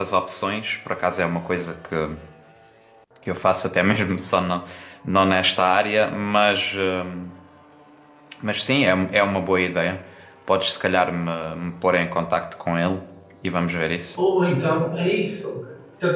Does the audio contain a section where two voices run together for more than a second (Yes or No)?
No